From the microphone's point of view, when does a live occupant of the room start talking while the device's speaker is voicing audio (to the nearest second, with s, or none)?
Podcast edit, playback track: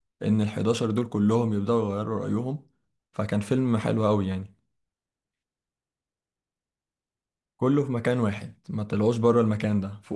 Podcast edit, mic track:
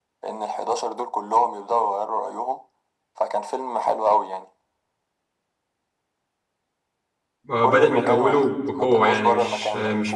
7 s